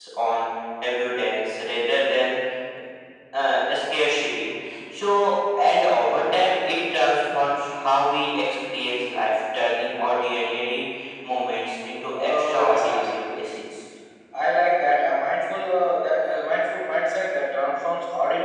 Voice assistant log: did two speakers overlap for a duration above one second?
Yes, from 12.2 s

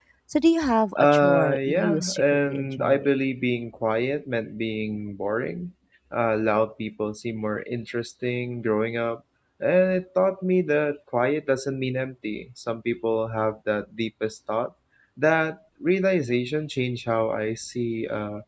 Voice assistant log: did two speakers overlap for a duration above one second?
Yes, from 1.0 s

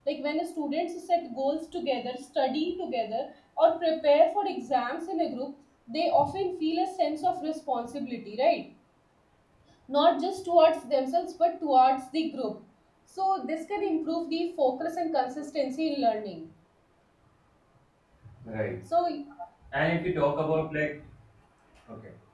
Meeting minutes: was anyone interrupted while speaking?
No

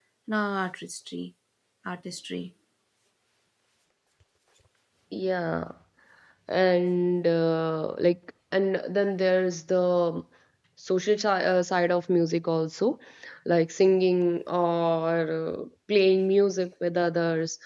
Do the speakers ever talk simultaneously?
No

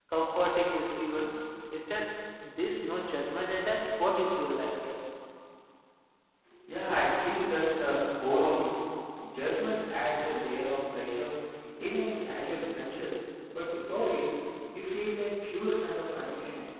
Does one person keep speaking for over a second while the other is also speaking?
No

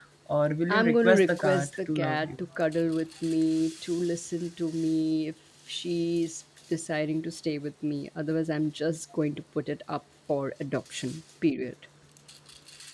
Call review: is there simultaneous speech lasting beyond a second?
Yes, from 0.7 s

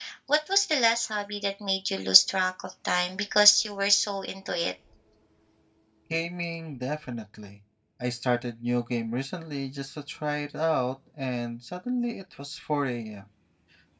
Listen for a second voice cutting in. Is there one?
No

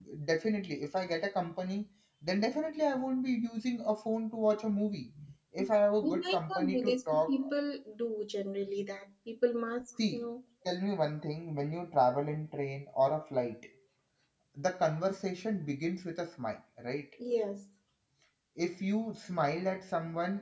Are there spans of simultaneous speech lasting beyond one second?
Yes, from 6.0 s

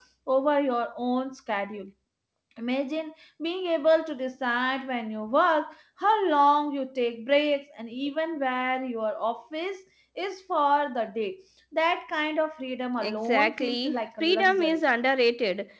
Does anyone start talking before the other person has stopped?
Yes, from 13.0 s

